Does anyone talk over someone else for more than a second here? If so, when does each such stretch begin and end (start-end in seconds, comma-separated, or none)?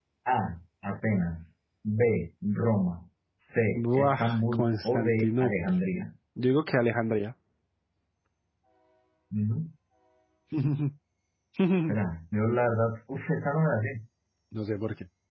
3.7-5.5